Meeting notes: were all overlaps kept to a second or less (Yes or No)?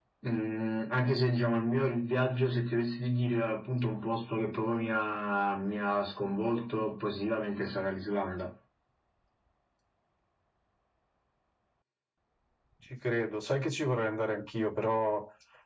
Yes